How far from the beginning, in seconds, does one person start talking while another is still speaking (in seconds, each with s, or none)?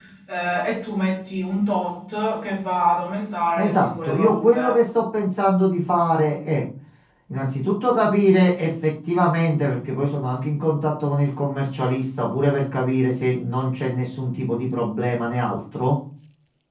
3.6 s